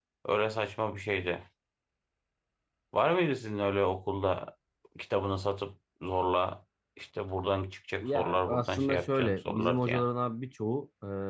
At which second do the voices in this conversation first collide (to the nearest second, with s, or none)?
8 s